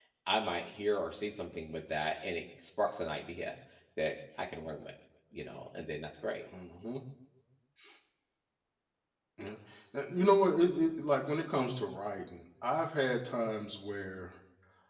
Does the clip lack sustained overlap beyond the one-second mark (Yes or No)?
Yes